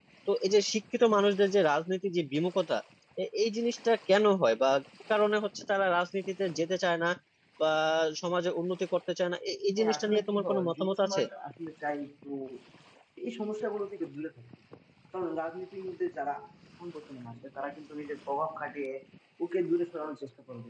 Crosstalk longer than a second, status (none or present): present